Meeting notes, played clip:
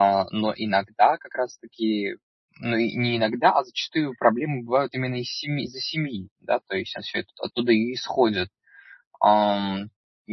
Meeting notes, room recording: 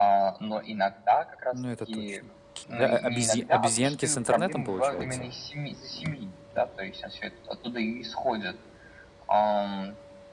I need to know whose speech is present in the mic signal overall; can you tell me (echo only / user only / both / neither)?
both